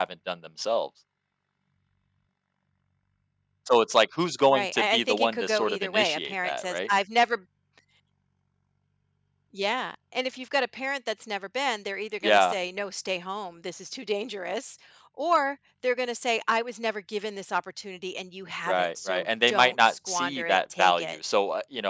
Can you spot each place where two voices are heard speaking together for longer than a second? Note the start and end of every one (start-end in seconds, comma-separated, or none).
4.5-6.8, 18.7-21.1